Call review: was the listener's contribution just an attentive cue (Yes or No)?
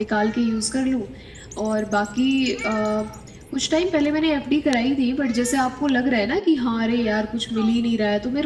Yes